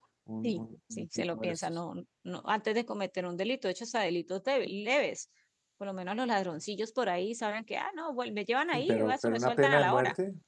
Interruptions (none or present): present